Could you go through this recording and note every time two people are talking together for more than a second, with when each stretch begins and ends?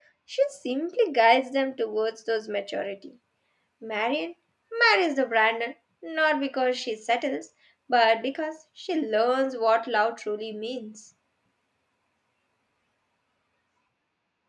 none

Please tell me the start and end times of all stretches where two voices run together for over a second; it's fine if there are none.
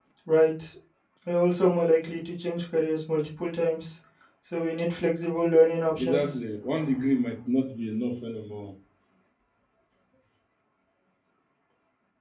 none

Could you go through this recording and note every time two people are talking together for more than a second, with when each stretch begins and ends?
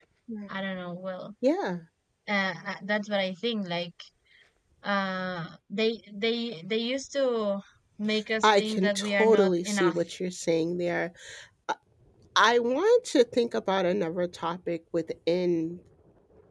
8.4-10.0

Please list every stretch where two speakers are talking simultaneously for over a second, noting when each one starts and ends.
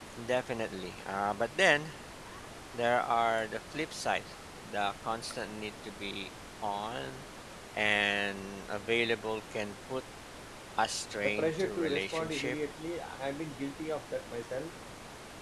11.2-12.6

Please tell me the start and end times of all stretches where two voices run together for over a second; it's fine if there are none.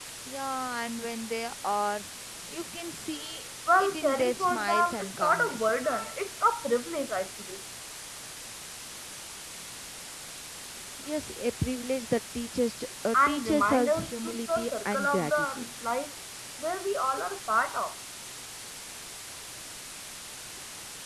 3.8-5.8, 13.1-15.7

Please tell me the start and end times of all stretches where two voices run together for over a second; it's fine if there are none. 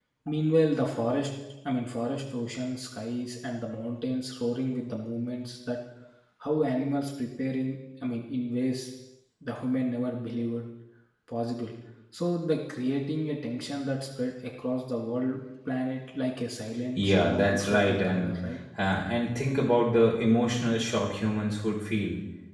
17.0-18.4

